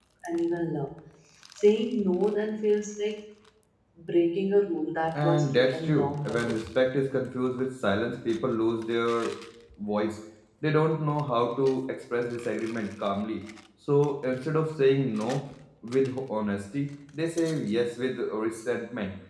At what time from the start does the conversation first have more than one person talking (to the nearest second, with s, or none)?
5 s